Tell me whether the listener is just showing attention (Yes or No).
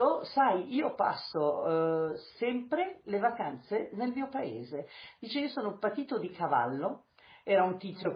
Yes